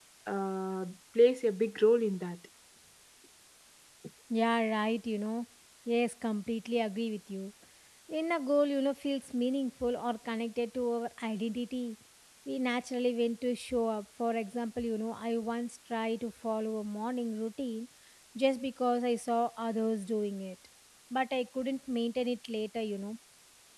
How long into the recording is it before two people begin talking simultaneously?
none

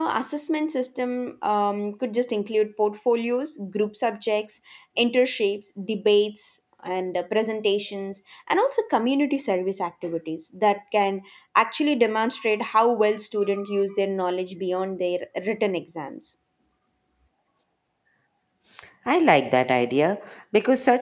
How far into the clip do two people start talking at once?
none

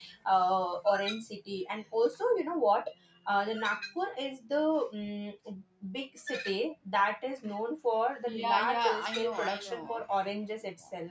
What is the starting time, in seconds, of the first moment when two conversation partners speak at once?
8.3 s

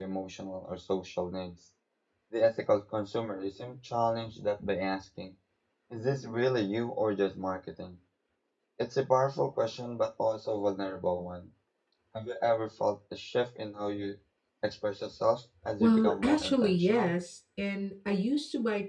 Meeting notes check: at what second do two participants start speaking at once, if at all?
15.8 s

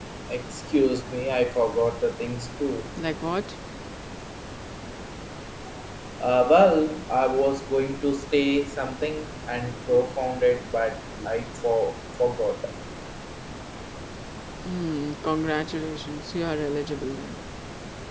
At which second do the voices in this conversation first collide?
none

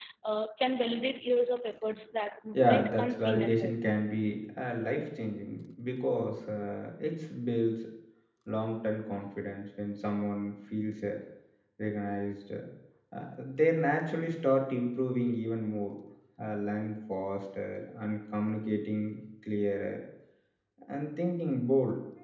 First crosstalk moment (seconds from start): 2.5 s

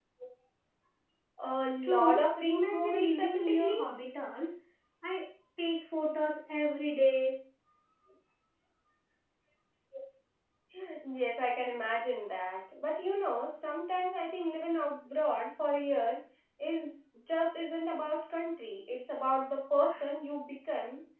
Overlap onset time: 1.8 s

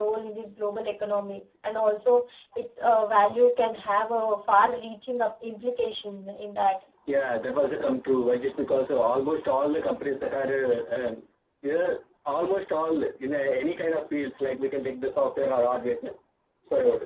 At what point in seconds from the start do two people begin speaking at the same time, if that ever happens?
none

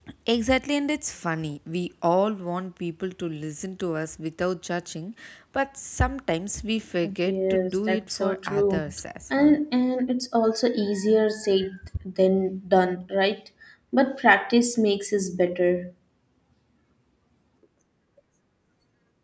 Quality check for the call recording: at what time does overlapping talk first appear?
7.3 s

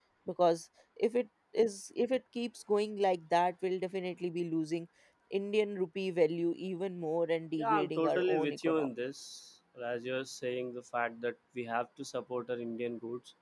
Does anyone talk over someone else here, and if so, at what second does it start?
7.6 s

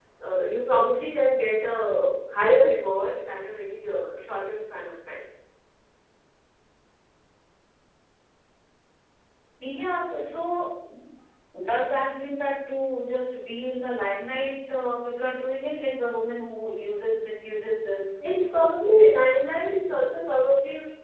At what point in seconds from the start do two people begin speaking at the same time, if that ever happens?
none

